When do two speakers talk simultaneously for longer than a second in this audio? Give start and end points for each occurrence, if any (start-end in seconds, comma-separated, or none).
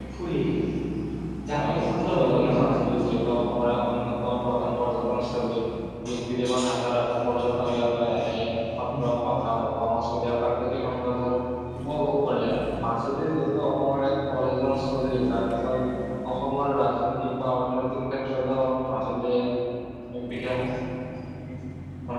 1.6-2.8